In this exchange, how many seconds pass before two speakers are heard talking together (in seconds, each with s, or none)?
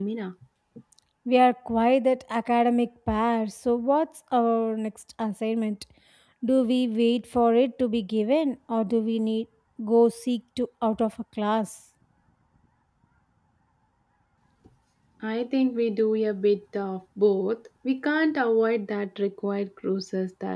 none